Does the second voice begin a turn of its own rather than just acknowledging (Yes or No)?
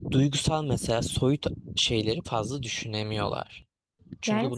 Yes